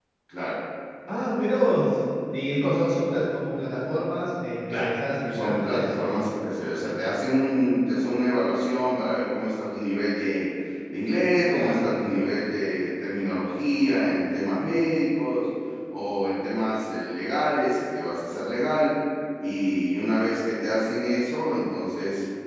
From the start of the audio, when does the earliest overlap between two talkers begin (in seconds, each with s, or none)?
4.7 s